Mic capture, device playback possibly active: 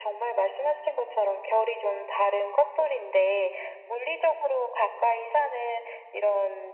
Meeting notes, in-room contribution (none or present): none